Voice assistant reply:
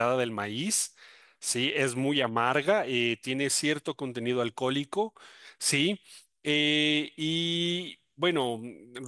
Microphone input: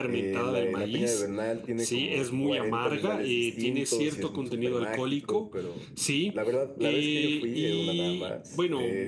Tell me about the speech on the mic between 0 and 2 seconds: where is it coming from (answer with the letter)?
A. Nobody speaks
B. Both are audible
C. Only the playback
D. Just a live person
B